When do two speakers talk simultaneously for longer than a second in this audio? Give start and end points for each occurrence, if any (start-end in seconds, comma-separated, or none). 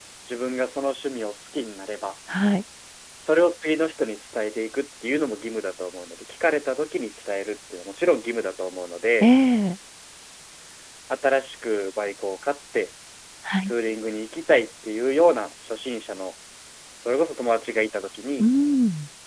none